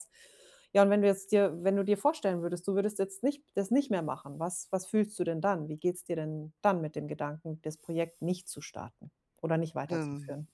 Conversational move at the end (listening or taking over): taking over